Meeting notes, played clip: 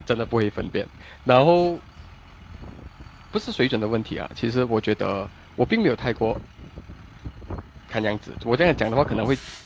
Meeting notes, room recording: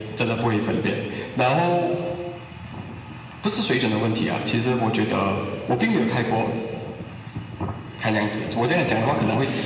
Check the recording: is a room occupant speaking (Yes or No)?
No